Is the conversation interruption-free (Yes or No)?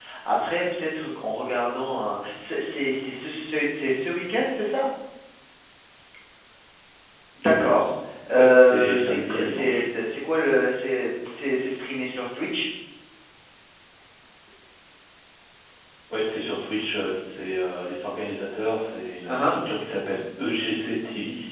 No